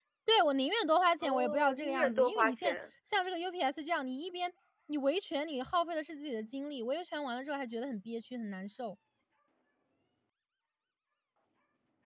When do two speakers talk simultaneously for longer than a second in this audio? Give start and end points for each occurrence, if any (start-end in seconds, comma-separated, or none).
1.2-2.8